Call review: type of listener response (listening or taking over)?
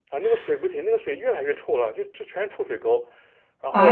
listening